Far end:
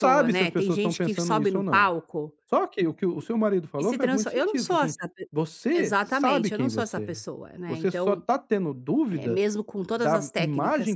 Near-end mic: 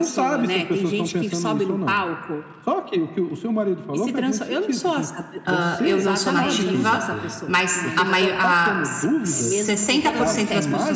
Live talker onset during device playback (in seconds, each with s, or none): 5.4 s